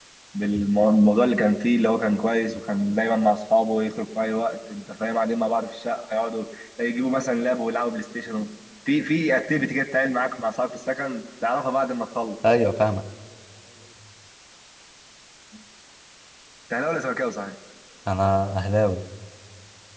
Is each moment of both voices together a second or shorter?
Yes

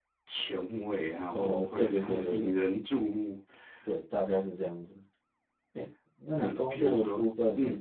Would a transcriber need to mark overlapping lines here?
Yes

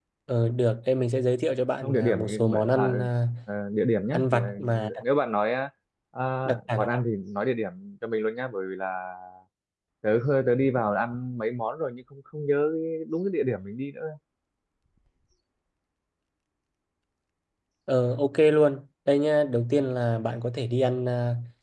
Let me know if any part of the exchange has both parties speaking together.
Yes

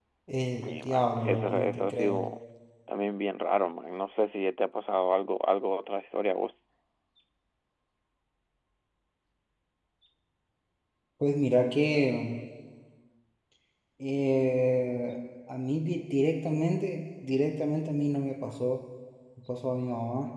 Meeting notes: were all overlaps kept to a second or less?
No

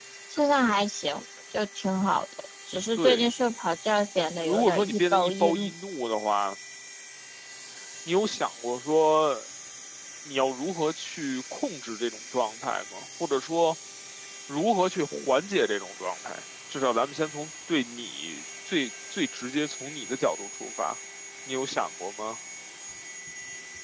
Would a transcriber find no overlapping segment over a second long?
No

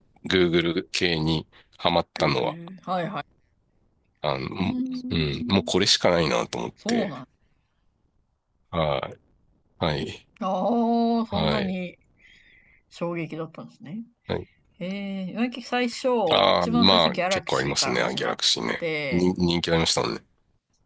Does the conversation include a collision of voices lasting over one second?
Yes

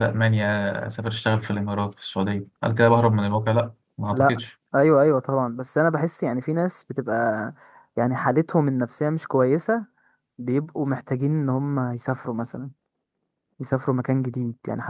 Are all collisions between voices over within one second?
Yes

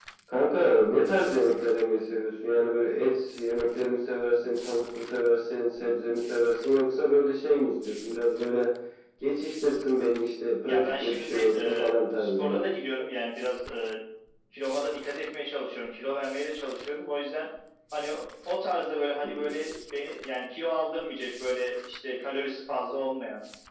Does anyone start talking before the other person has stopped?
Yes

